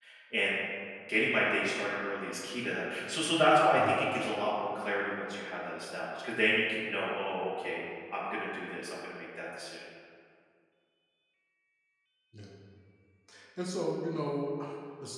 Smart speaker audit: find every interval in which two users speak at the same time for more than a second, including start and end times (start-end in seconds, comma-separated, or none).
none